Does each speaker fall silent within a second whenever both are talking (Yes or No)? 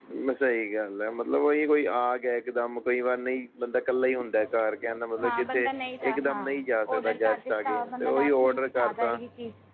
No